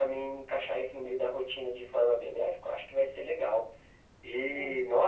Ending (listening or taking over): listening